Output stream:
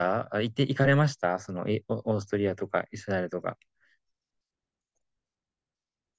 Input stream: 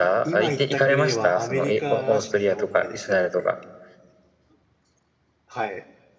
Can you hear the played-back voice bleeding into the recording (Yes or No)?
Yes